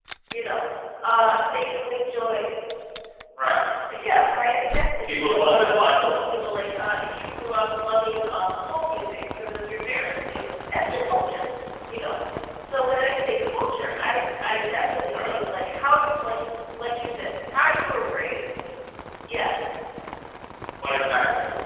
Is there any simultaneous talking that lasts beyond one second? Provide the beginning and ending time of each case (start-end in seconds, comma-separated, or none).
5.1-6.3